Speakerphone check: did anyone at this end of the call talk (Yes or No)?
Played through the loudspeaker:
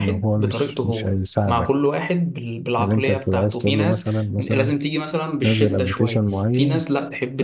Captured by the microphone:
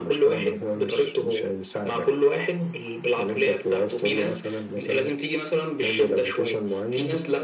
No